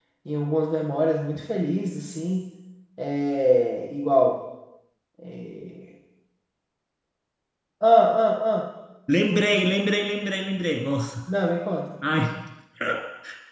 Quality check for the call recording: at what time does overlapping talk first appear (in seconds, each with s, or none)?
none